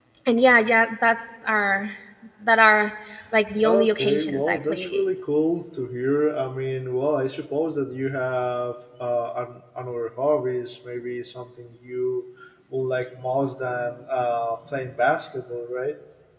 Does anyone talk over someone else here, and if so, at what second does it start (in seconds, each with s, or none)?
3.6 s